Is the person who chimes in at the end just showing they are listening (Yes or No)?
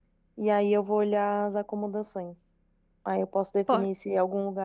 Yes